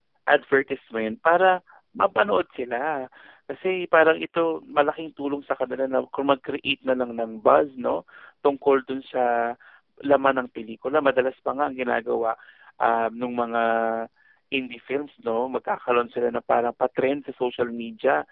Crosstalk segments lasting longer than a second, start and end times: none

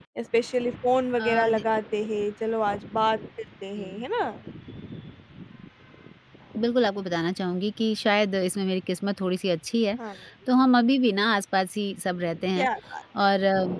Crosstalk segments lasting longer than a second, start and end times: none

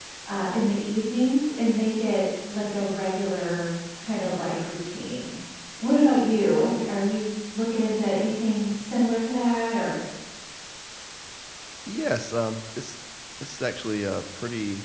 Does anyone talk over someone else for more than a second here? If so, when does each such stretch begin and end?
none

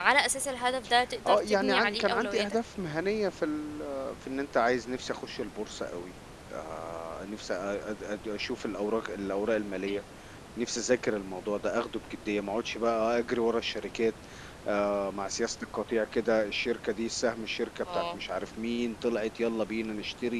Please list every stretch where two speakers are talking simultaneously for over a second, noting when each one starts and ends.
1.3-2.6

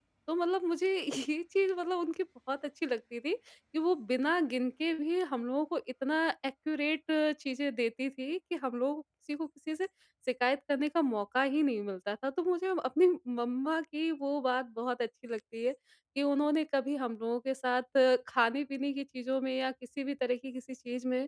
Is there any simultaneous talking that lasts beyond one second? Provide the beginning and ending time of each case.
none

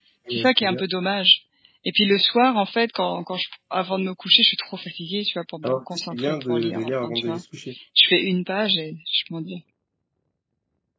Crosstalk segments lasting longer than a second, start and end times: 5.6-7.4

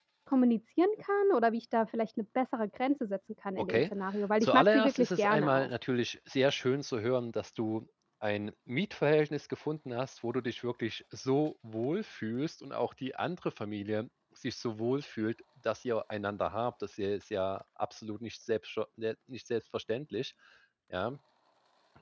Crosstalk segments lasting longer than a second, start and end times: 4.4-5.7

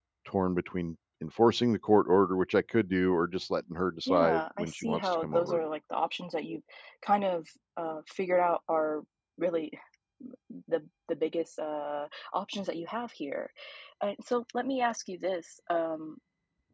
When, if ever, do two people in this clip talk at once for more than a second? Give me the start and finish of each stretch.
4.1-5.6

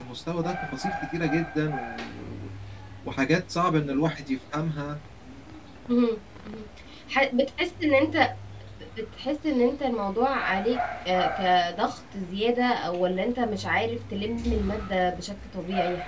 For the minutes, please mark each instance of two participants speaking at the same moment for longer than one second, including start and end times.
none

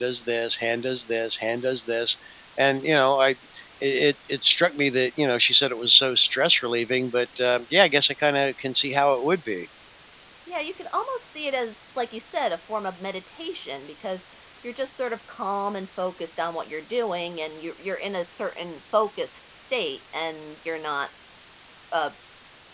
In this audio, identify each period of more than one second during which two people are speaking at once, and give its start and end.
none

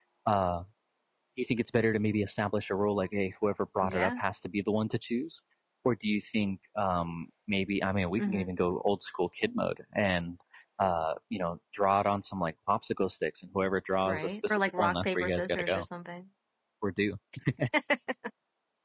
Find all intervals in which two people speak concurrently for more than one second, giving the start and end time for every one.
14.1-15.8

